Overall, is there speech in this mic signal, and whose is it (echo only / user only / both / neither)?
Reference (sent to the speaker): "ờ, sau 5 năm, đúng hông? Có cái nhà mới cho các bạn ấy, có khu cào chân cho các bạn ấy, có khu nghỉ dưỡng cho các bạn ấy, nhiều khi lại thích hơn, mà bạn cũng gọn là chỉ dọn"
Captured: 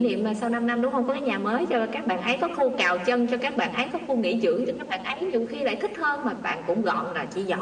echo only